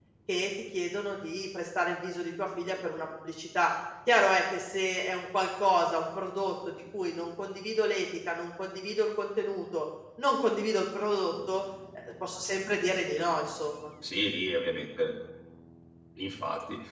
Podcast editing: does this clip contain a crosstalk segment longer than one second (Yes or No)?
No